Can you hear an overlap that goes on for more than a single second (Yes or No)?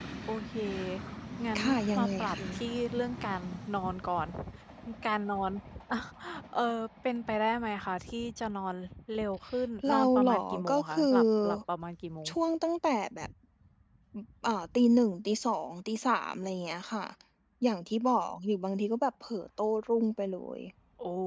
Yes